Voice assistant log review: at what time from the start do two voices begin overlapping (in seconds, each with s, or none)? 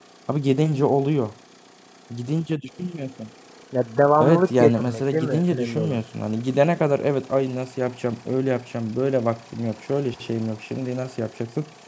4.2 s